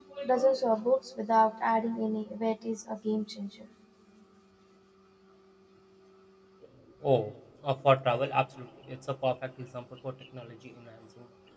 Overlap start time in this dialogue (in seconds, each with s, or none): none